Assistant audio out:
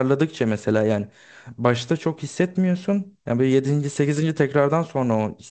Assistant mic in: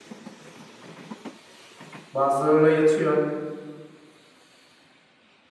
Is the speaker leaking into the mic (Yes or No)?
No